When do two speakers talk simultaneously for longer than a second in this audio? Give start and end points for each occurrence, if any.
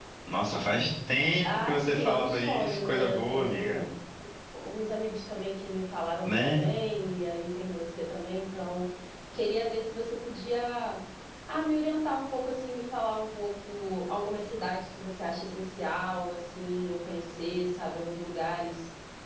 1.4-3.8

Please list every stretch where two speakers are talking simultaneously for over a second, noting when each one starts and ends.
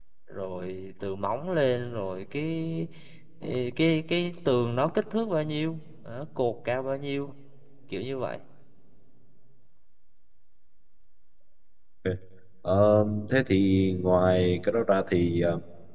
none

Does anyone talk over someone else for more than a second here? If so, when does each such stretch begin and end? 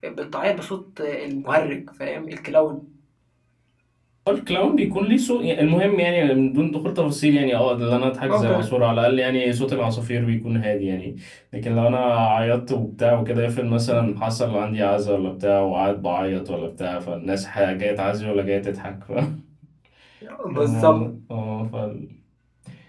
none

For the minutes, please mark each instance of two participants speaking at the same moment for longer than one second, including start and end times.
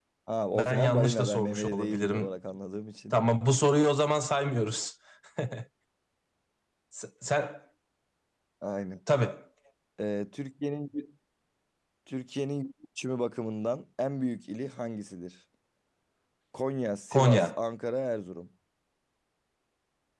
0.6-2.3

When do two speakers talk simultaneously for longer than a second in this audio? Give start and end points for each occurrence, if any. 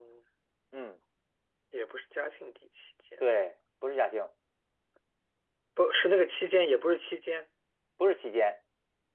none

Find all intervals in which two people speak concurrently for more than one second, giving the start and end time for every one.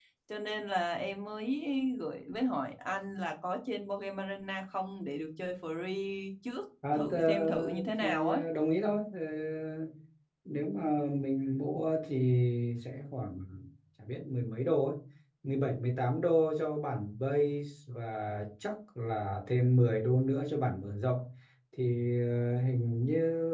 6.9-8.4

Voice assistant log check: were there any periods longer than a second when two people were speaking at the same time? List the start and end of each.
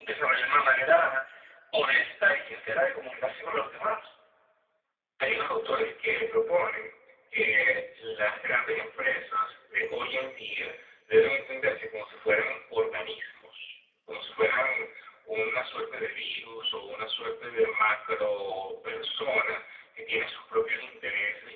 none

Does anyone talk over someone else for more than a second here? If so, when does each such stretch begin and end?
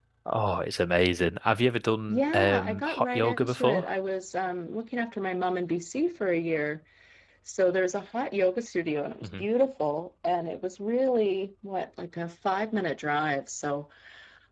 2.1-3.9

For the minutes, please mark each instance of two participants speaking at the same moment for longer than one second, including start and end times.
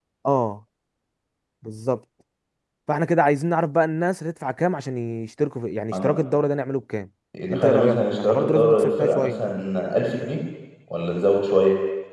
7.5-9.3

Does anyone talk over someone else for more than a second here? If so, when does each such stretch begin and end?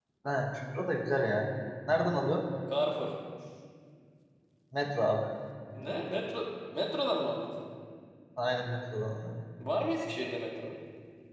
none

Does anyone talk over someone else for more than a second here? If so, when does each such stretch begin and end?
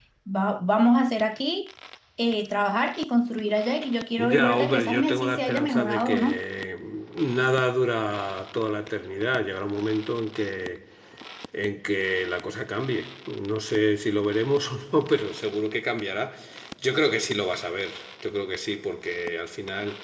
4.2-6.4

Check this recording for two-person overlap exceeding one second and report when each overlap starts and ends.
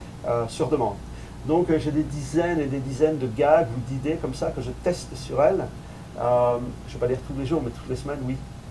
none

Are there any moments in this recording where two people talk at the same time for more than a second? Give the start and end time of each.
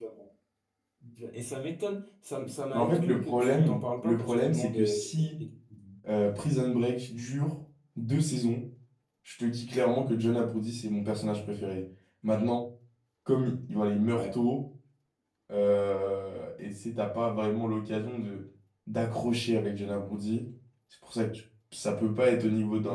2.7-4.9

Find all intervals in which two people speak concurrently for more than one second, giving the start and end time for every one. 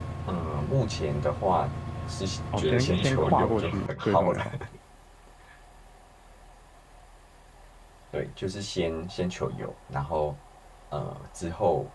2.6-4.5

